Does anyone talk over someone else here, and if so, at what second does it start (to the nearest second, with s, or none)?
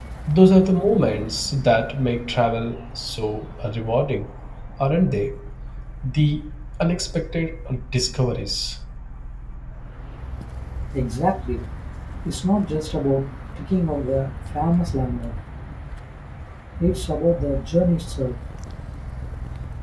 none